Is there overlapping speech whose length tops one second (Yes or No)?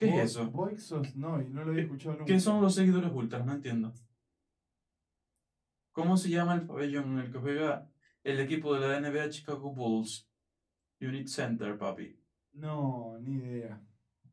No